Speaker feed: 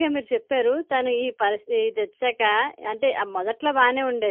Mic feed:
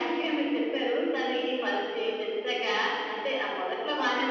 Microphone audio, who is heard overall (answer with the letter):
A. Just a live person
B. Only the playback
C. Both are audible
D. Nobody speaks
B